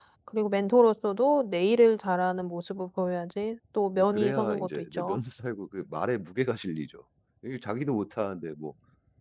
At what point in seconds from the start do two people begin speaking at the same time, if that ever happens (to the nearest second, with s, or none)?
4 s